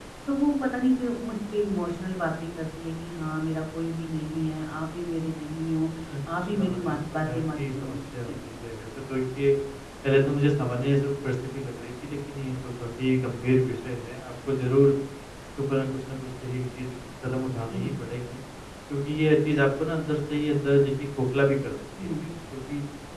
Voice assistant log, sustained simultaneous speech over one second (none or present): present